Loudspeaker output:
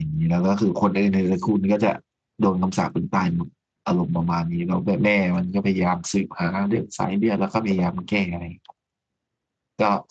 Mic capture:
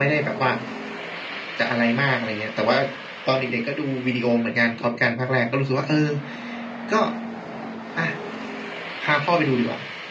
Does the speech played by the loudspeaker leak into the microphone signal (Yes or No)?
No